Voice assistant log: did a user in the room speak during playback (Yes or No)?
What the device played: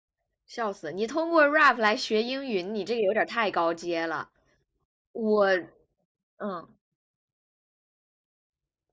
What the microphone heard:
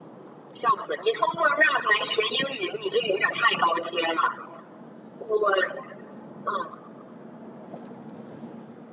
No